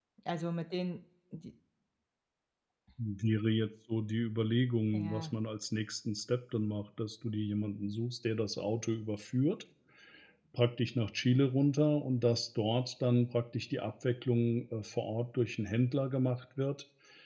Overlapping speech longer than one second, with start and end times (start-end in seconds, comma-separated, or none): none